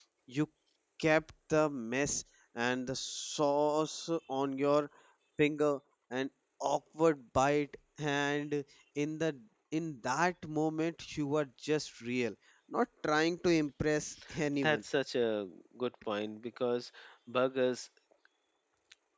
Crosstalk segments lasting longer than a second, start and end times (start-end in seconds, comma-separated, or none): none